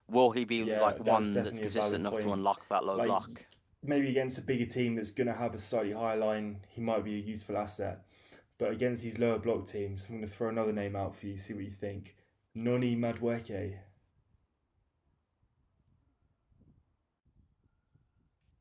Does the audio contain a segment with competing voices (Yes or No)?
Yes